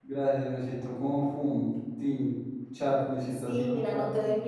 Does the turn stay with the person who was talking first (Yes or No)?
No